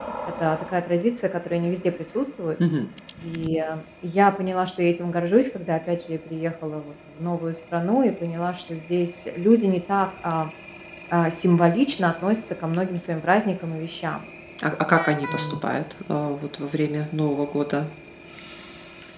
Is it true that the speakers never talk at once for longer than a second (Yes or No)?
Yes